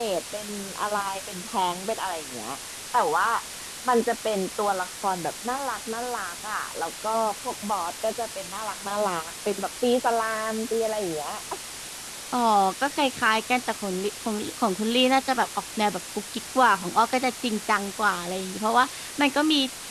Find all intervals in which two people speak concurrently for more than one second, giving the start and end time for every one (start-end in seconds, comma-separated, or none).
none